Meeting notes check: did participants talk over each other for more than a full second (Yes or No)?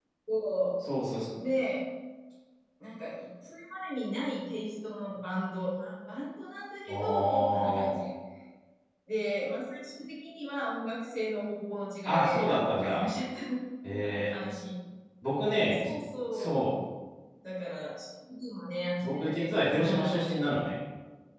Yes